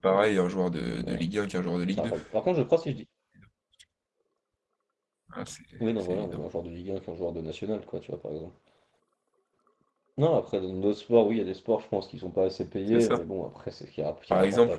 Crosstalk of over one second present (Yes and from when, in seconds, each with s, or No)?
No